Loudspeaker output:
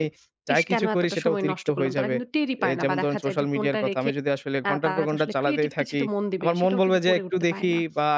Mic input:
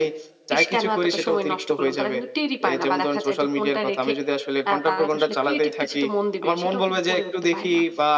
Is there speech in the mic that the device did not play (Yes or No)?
No